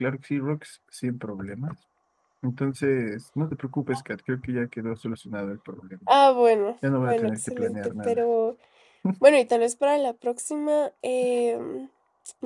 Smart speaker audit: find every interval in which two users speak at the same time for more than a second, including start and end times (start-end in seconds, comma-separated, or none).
7.0-8.2